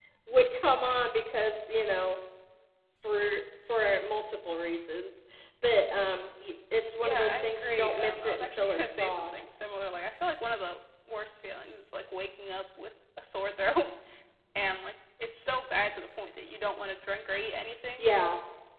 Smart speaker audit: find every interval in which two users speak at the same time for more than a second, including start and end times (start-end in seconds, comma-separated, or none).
7.0-9.4